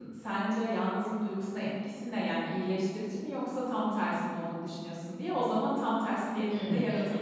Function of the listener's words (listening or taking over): taking over